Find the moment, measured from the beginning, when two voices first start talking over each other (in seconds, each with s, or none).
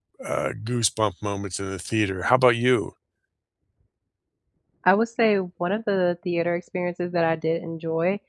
none